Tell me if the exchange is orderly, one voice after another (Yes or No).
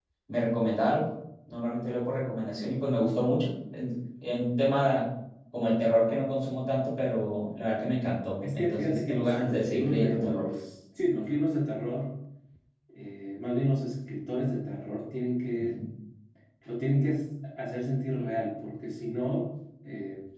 No